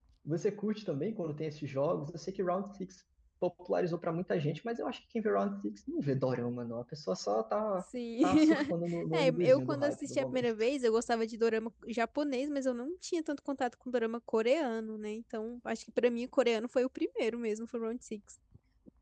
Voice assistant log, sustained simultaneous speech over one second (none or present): present